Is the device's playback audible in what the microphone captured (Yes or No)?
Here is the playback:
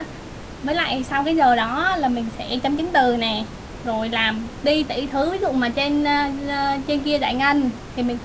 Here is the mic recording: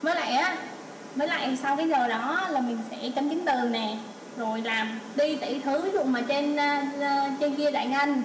Yes